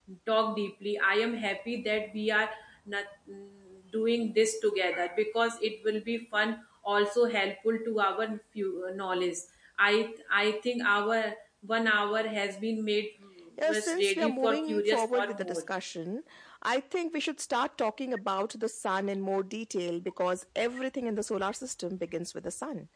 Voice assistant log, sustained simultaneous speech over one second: present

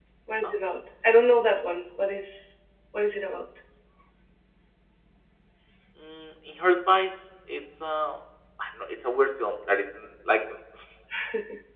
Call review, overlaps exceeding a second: none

